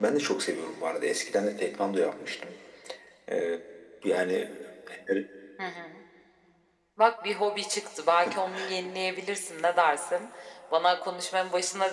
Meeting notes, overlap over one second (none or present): none